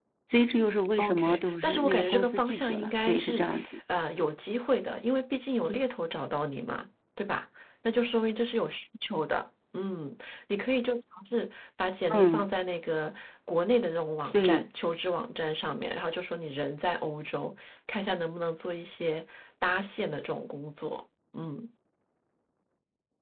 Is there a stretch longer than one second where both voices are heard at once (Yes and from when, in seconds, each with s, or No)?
Yes, from 1.0 s